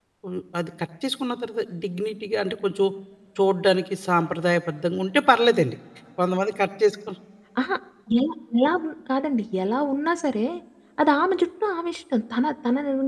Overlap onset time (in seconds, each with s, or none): none